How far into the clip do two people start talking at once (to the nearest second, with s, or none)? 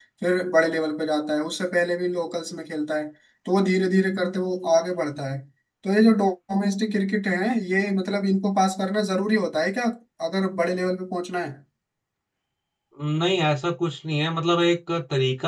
none